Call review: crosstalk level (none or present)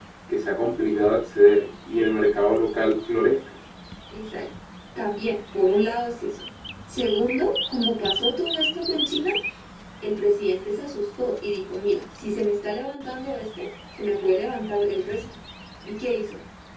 none